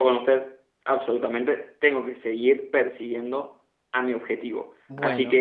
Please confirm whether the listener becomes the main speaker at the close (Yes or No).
No